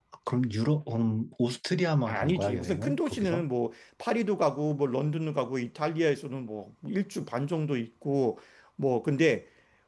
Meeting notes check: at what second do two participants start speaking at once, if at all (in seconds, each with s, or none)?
2.0 s